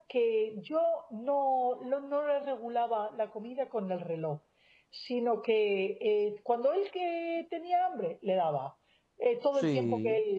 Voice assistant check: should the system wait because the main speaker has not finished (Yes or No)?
Yes